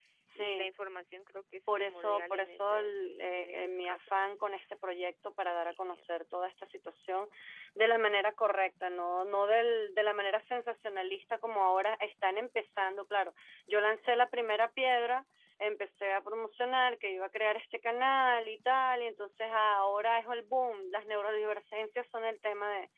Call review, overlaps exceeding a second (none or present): present